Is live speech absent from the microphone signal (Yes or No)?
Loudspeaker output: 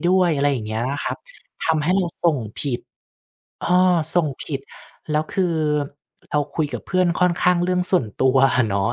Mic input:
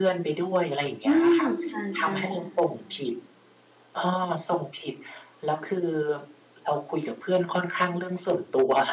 No